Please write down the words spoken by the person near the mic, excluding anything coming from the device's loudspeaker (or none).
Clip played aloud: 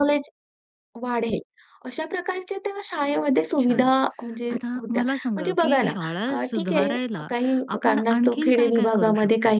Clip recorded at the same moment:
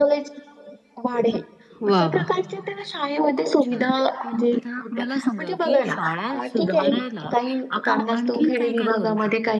वाह! वाह!